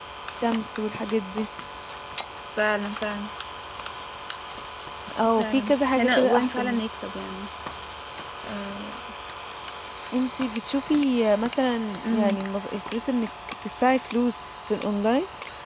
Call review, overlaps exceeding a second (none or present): present